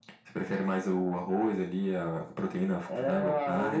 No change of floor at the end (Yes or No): No